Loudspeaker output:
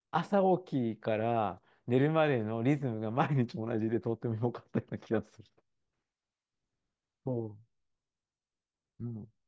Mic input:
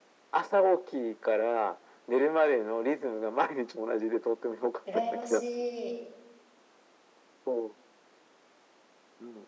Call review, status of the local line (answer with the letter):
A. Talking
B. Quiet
A